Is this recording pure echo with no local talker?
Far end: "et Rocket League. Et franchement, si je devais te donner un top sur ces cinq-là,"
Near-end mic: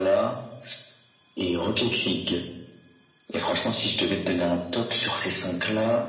Yes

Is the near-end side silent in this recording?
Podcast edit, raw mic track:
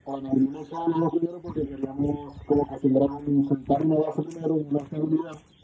Yes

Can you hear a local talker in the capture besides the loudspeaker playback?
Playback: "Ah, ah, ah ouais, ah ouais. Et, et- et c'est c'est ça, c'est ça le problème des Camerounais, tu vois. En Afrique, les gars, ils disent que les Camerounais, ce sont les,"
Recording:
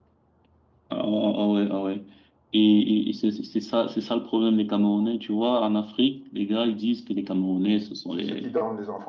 Yes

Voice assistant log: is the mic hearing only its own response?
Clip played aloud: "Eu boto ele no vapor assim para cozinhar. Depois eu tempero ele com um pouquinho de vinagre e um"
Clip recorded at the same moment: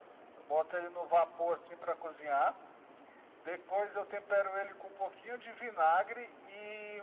Yes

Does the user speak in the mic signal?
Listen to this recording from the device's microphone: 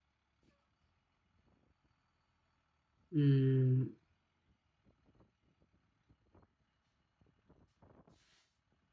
Yes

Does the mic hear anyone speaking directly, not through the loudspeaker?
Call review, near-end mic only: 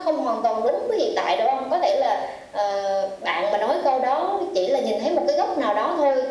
No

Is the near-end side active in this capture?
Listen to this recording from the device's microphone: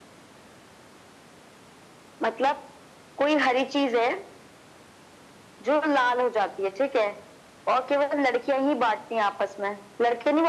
No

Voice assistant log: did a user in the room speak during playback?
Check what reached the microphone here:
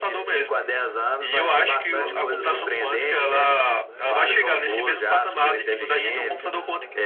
Yes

